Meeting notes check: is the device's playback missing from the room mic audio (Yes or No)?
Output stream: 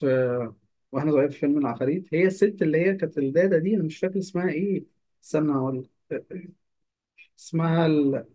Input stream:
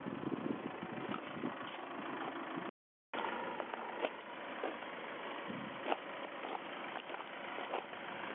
Yes